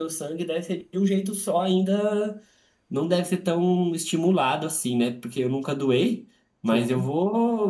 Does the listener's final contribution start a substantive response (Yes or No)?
No